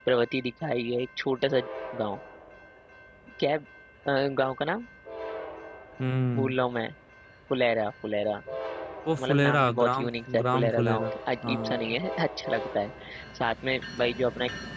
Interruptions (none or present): present